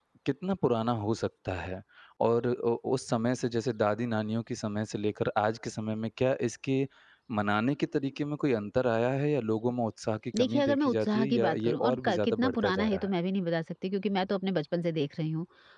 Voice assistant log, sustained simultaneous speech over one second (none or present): present